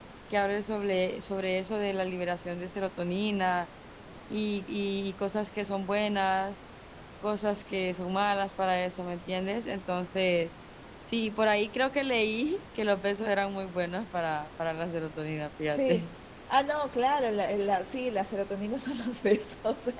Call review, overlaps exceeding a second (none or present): none